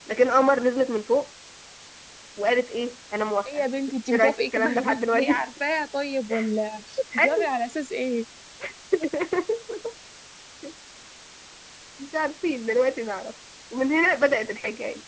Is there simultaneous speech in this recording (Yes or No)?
Yes